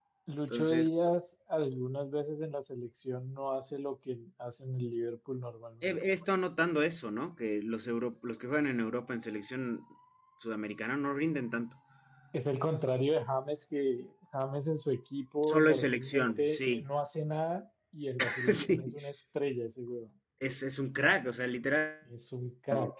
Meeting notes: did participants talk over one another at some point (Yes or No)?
Yes